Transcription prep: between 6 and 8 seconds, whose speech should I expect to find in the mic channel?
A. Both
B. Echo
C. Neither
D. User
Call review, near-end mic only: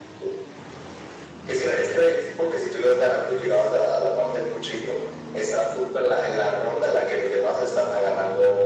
B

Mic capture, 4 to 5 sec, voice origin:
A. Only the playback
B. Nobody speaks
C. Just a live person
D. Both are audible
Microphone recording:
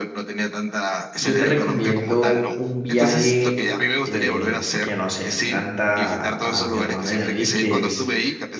D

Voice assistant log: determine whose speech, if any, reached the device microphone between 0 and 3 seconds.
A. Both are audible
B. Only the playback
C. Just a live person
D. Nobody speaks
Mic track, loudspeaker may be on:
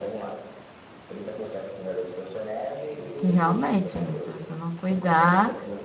B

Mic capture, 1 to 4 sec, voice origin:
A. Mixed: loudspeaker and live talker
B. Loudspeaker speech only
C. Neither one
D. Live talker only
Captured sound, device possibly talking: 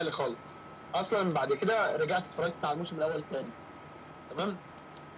B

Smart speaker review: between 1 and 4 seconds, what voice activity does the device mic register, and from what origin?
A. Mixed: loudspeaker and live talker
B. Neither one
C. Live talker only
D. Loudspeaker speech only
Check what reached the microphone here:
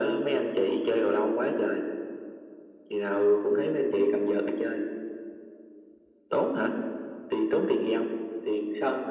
D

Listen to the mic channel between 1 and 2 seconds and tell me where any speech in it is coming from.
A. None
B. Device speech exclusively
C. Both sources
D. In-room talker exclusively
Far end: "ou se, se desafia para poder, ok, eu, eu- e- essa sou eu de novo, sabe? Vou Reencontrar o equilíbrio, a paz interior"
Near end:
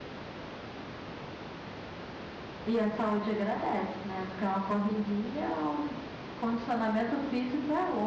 A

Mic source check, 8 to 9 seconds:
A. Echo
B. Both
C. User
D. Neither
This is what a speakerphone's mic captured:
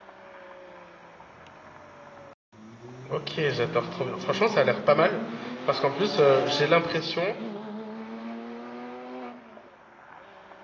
D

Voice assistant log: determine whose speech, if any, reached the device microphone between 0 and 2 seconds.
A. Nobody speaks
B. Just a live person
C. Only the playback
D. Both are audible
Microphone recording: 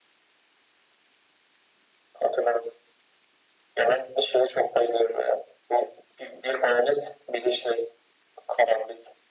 A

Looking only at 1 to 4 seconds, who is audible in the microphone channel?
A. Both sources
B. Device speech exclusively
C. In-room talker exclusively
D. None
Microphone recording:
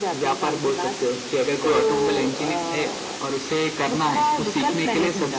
B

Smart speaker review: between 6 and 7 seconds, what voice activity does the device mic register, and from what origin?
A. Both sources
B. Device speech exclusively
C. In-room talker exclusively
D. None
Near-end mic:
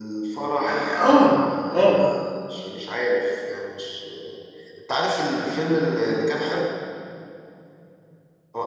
B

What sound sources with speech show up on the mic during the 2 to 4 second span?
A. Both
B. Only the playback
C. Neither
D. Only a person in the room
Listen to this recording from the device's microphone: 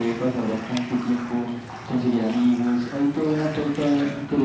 B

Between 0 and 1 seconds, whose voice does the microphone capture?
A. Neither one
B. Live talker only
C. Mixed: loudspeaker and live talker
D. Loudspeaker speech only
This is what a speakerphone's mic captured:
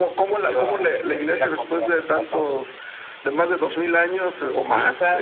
D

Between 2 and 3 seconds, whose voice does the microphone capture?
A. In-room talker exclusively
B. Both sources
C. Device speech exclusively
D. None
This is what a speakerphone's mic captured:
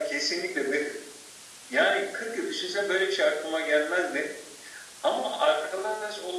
C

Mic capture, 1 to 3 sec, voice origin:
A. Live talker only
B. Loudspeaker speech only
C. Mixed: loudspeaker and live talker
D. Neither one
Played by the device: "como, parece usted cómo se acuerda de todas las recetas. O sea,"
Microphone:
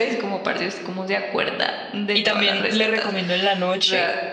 C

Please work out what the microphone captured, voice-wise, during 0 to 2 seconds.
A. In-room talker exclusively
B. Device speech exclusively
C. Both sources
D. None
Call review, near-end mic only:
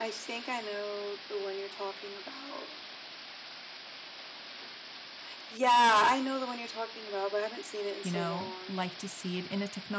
B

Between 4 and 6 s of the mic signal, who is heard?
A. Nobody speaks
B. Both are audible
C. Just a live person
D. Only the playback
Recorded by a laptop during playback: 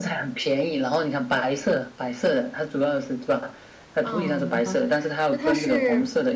B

